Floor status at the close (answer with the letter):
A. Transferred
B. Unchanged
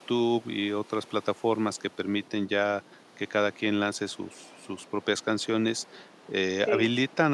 B